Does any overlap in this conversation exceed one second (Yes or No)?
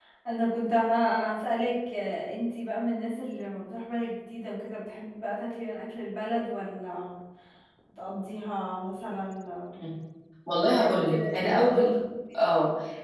Yes